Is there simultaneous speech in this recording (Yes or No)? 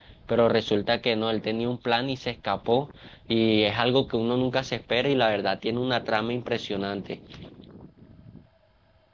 No